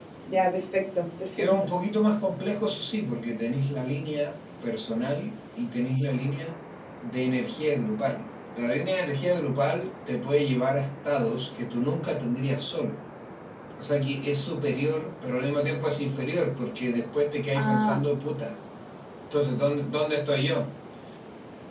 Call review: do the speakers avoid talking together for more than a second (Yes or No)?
Yes